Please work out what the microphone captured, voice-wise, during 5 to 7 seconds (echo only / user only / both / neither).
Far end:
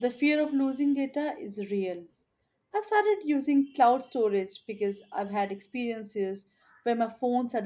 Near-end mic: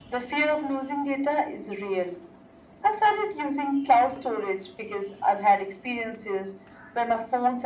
echo only